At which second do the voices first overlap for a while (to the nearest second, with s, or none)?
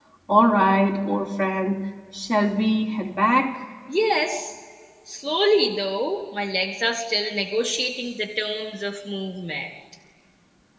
none